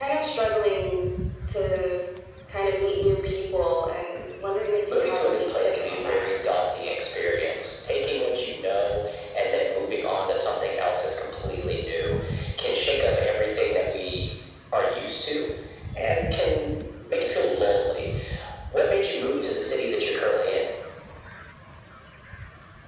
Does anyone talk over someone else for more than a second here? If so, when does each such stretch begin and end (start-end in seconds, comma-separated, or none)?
4.9-6.3